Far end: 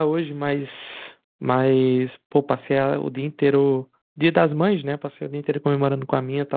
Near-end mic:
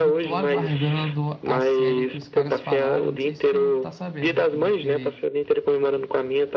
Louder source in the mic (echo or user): echo